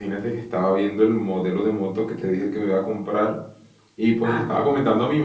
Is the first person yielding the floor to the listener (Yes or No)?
No